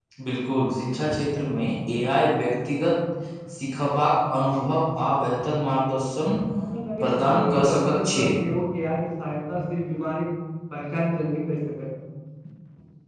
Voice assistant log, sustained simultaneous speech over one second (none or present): present